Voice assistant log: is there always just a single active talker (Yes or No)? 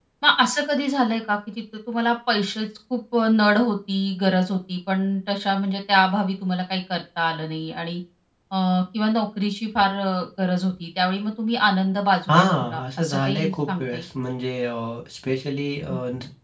No